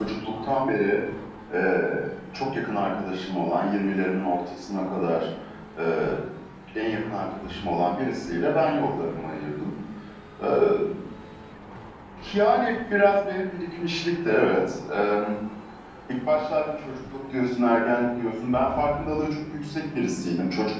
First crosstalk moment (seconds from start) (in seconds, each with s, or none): none